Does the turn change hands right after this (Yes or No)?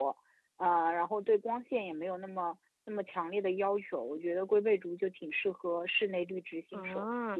Yes